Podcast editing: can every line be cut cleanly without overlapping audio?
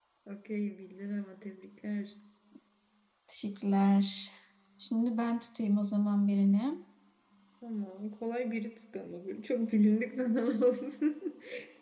Yes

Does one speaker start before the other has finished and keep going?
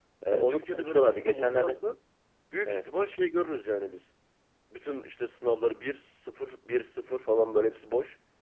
Yes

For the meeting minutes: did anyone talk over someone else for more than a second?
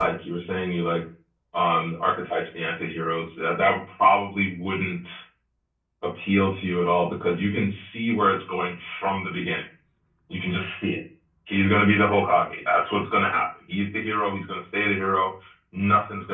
No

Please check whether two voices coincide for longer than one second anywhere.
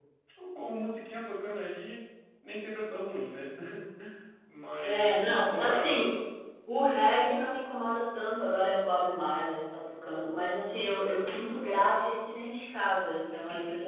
Yes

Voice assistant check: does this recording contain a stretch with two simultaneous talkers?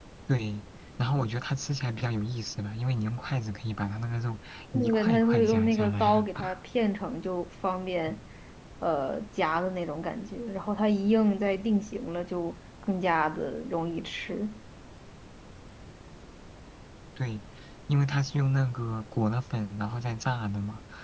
Yes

